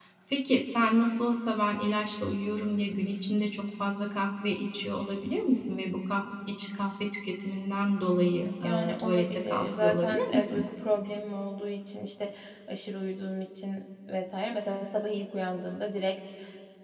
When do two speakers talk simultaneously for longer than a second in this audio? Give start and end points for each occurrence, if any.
8.6-10.6

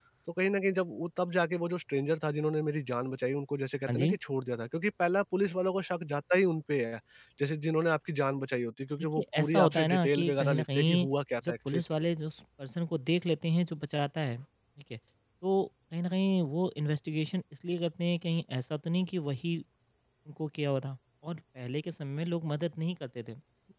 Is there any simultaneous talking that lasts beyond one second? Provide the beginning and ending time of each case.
9.2-11.1

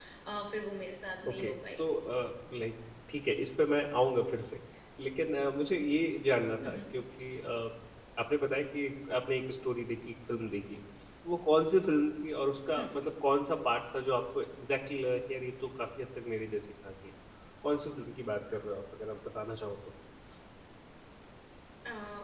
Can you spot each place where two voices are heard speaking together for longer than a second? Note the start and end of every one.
none

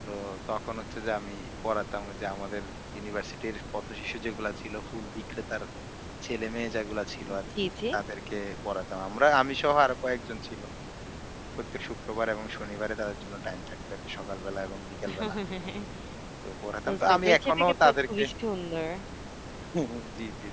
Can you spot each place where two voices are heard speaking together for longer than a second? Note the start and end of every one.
16.9-18.2

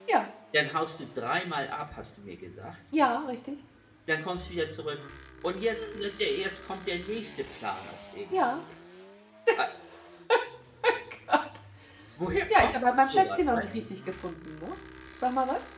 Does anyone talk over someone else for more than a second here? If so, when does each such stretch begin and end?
12.5-13.8

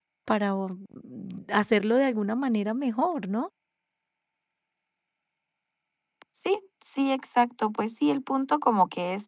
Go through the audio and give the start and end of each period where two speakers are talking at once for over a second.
none

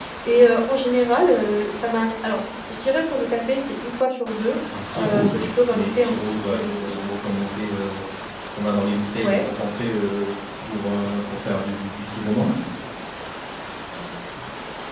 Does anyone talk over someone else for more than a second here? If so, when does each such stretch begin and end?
5.0-7.1

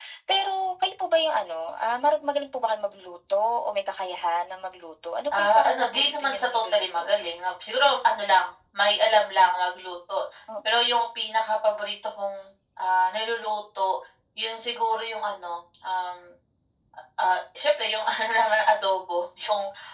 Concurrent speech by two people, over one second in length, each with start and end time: 5.4-7.1

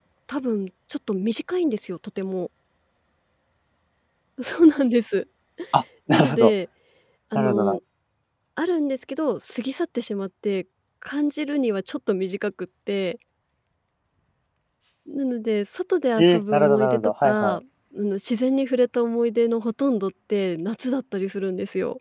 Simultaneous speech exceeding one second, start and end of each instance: 16.2-17.6

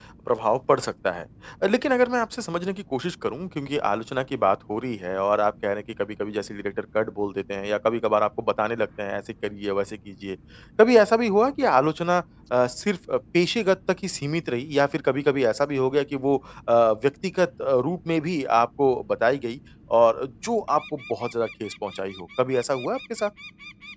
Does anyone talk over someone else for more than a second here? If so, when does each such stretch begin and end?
none

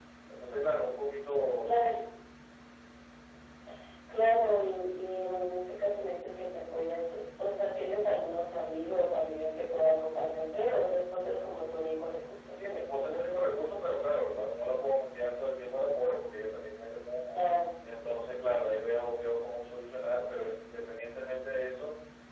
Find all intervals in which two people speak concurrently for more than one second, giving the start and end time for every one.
none

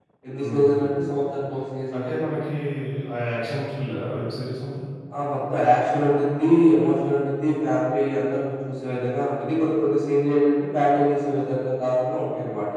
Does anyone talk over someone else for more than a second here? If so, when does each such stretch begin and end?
none

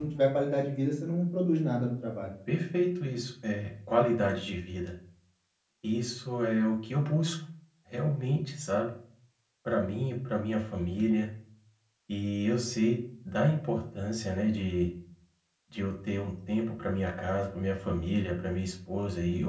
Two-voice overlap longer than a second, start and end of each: none

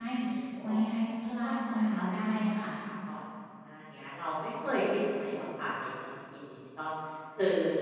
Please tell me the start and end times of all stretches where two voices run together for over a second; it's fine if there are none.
1.4-2.7

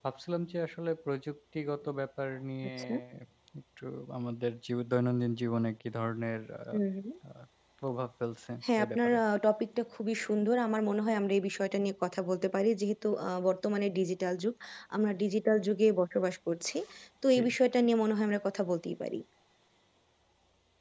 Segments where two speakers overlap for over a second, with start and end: none

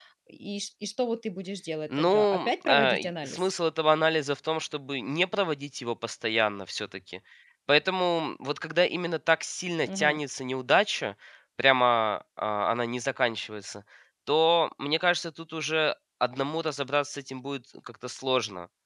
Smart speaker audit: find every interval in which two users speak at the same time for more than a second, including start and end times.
2.0-3.5

